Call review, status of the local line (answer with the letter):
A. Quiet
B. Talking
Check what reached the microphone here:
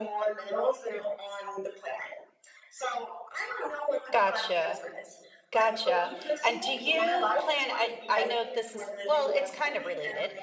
B